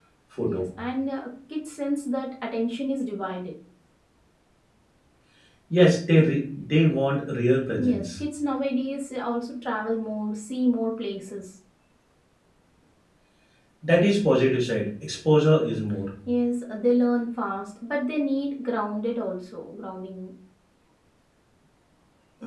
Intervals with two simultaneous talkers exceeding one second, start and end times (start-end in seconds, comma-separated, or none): none